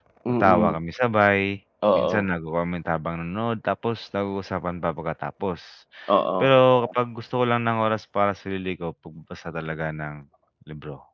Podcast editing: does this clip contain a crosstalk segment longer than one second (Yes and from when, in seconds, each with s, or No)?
No